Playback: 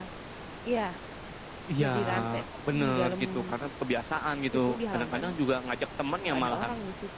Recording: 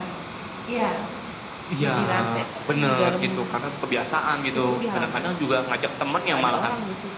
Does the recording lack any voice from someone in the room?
Yes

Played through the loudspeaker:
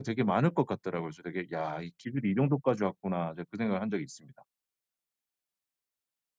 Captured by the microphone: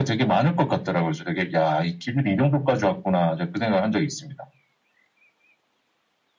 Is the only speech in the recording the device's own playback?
Yes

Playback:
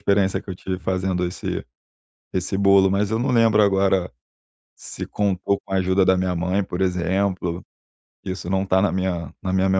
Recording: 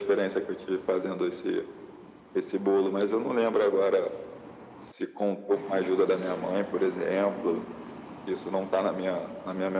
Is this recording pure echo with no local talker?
Yes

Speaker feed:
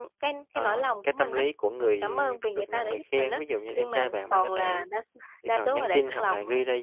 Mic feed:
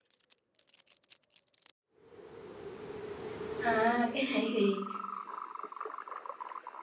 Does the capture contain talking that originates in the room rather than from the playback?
Yes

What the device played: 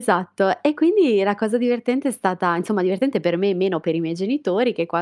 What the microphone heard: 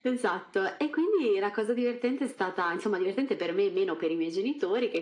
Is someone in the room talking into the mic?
No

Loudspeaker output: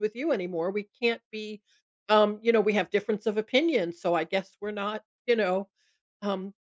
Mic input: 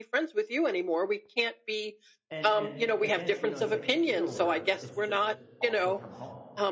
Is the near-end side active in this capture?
Yes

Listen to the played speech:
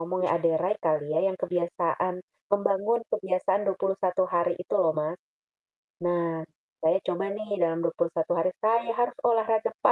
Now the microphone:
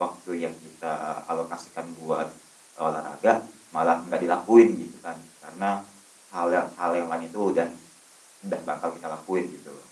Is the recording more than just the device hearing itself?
Yes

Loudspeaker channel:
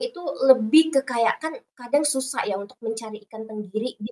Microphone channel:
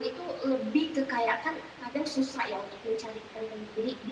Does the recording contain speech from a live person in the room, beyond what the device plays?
No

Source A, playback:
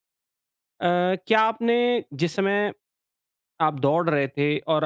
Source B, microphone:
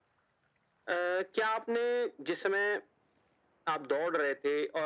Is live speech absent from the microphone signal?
Yes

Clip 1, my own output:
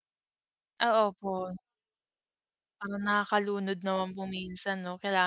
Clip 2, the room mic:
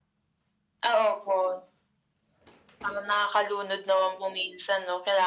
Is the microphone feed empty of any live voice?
Yes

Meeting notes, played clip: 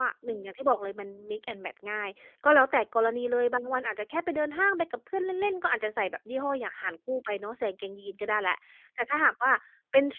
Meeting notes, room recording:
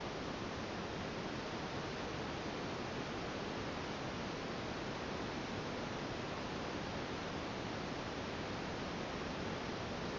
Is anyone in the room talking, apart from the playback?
No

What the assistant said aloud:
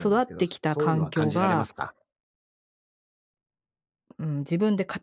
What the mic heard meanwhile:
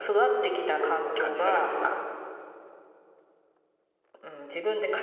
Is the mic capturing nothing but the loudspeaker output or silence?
Yes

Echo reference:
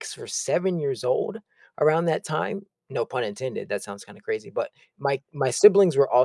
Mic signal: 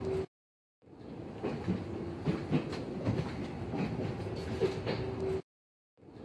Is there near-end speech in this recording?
No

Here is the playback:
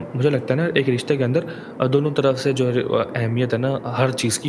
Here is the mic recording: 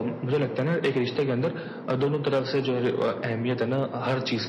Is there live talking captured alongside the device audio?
No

